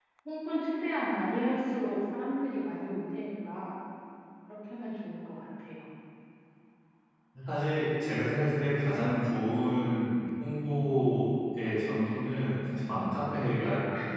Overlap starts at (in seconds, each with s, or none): none